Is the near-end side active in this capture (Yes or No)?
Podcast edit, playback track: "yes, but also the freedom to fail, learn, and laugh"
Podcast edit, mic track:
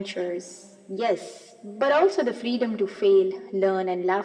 No